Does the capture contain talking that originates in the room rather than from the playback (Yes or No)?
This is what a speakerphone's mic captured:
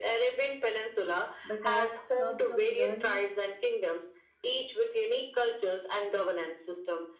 Yes